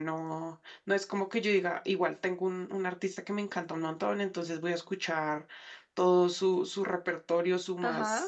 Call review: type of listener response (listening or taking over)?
listening